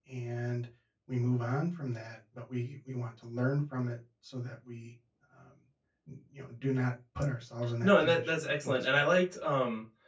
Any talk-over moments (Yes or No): Yes